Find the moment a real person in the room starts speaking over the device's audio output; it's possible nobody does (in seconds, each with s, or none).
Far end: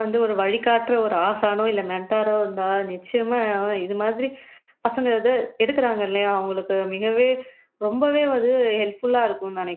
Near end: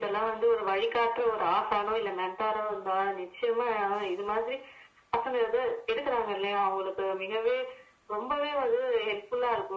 none